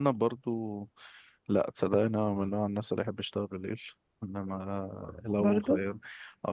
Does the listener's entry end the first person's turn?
No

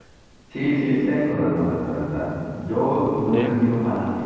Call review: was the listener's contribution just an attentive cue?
Yes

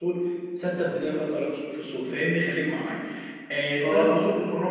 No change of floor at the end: Yes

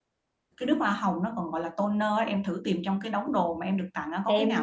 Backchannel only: No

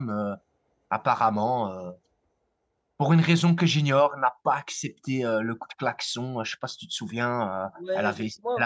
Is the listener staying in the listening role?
No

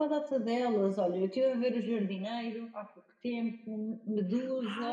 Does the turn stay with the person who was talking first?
No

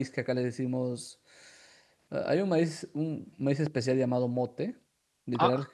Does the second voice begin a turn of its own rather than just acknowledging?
No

